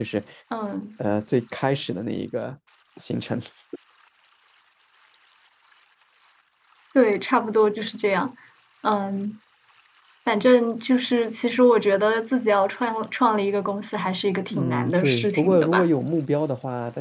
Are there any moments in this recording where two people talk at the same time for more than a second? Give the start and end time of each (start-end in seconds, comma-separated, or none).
14.5-15.9